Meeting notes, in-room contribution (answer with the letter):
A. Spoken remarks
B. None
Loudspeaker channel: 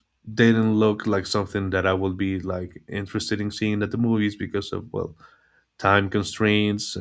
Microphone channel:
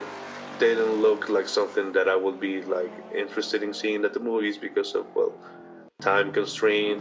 B